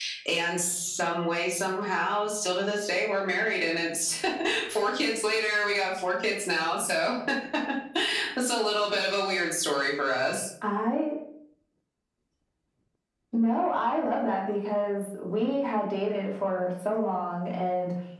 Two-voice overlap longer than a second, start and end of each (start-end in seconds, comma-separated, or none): none